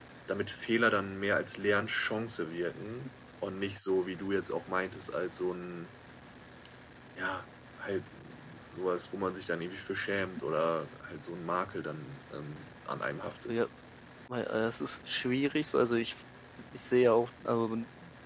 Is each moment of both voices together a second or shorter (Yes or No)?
Yes